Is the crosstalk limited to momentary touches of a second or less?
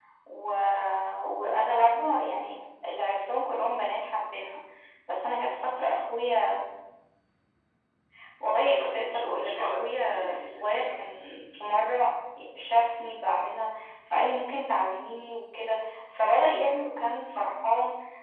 No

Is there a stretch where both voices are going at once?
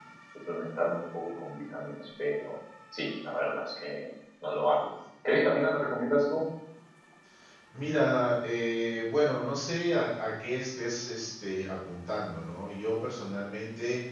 No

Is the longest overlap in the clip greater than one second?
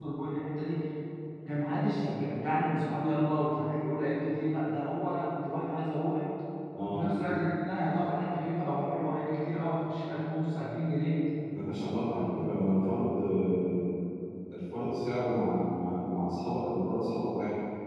No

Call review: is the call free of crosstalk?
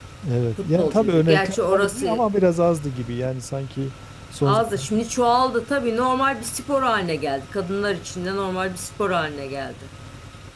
No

